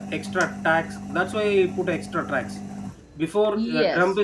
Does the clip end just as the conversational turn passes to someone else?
No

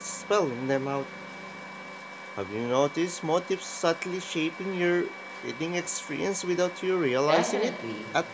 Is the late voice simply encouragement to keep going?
No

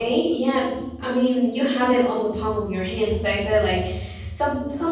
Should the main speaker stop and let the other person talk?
No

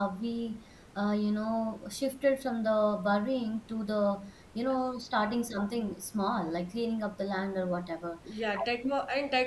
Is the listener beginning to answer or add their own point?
Yes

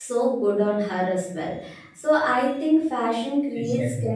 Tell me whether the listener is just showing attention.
Yes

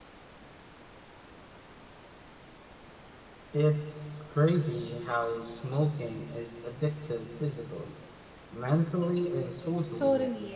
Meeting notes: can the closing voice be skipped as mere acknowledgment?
No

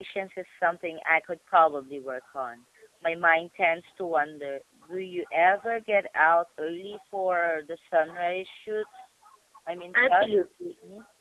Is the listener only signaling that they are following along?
No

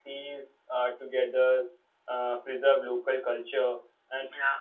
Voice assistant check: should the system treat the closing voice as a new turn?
No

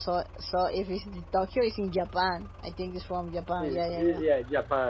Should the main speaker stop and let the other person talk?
Yes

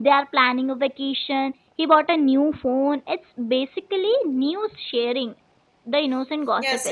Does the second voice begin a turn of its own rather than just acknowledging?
Yes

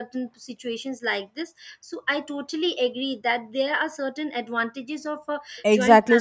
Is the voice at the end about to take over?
Yes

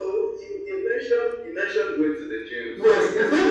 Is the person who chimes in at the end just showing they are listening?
No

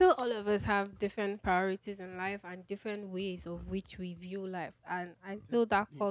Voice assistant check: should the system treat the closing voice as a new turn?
No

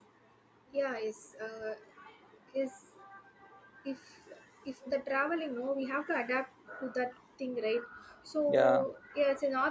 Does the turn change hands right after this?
No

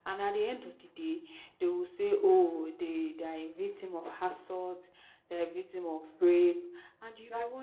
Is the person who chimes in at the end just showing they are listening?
Yes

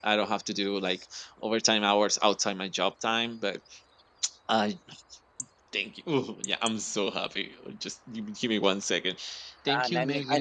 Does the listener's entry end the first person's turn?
Yes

